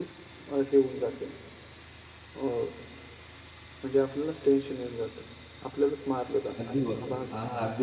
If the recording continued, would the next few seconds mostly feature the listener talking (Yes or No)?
Yes